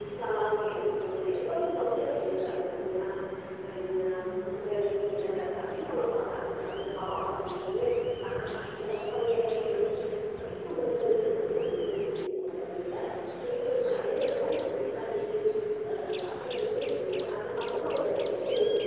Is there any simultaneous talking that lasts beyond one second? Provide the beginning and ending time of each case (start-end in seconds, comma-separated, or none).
14.0-15.2